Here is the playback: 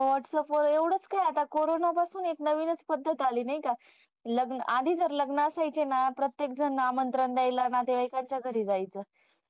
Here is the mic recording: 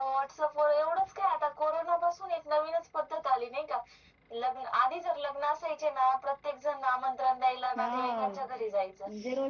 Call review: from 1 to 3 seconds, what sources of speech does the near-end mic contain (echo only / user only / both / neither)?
echo only